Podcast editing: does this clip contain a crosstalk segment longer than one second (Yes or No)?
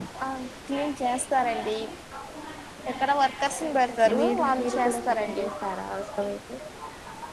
Yes